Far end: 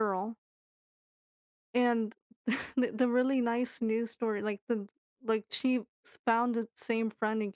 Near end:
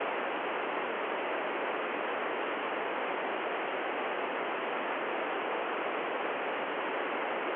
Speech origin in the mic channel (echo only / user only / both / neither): neither